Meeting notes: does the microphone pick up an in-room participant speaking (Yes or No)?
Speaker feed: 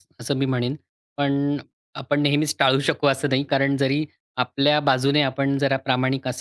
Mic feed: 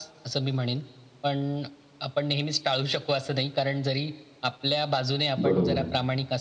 Yes